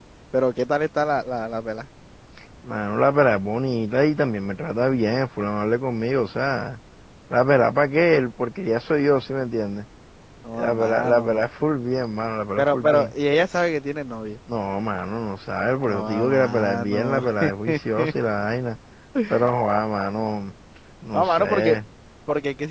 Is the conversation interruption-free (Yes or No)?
No